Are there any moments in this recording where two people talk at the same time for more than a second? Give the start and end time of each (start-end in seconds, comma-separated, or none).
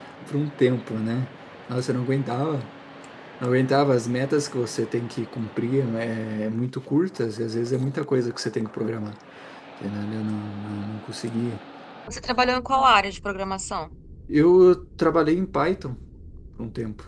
none